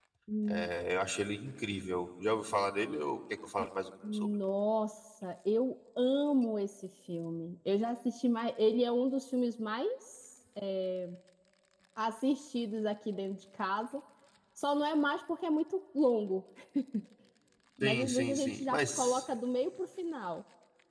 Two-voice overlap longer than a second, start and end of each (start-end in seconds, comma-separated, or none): 17.8-19.2